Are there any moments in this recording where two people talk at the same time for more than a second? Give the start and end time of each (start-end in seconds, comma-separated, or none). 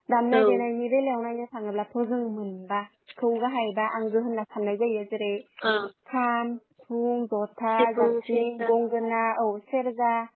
7.7-9.1